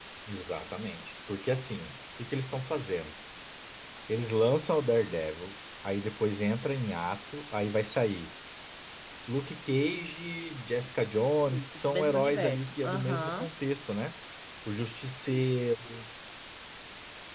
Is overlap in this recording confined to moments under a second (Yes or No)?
No